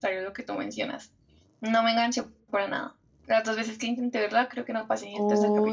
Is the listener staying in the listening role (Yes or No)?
No